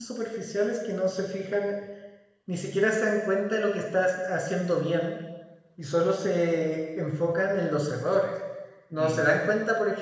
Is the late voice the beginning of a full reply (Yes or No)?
No